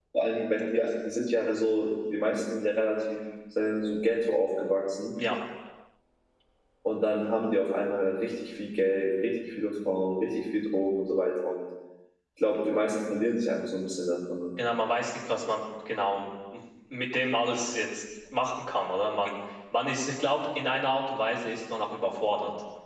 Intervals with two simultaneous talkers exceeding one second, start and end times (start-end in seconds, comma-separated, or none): none